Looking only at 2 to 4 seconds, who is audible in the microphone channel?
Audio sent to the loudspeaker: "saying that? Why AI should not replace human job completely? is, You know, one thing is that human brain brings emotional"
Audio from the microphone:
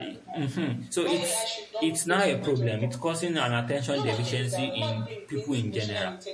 both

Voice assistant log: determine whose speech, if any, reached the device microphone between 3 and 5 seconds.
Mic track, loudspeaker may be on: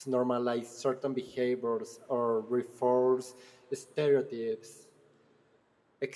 user only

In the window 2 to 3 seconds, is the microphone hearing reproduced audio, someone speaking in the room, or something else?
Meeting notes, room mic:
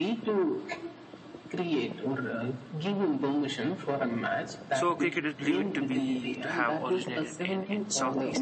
echo only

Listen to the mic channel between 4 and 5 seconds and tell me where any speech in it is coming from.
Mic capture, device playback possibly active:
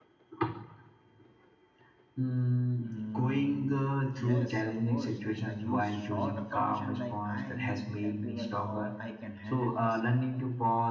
both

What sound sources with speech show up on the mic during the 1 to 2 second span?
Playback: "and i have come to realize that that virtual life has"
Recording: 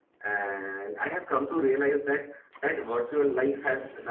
echo only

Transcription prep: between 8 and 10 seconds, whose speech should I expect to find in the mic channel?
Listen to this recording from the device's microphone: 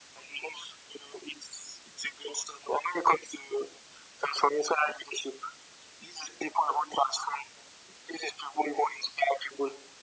echo only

